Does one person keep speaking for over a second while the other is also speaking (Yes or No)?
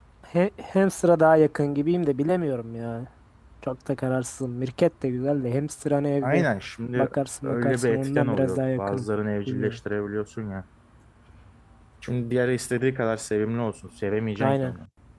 Yes